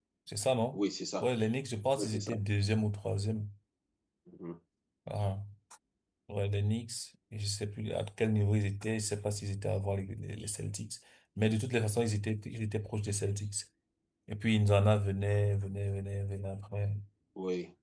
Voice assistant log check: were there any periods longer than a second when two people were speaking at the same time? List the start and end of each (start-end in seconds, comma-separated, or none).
none